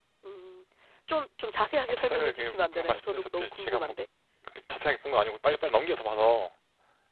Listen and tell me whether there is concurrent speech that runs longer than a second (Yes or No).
Yes